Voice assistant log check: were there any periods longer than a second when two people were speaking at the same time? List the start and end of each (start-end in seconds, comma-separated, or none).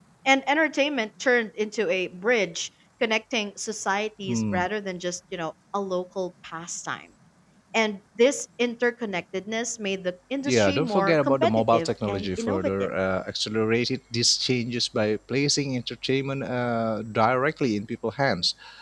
10.5-12.9